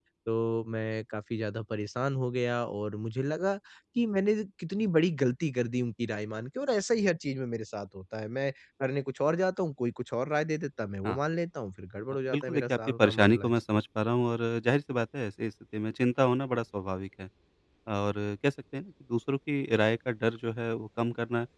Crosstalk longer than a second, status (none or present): present